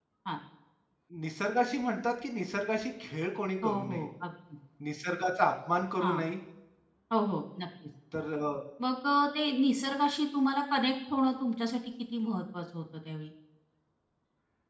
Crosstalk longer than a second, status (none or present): none